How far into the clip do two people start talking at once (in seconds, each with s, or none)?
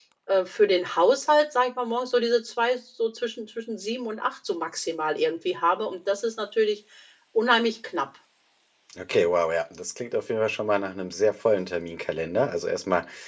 none